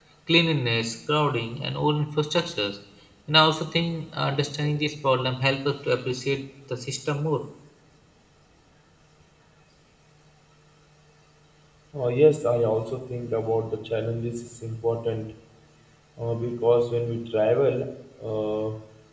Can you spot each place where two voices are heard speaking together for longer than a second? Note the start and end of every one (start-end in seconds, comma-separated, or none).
none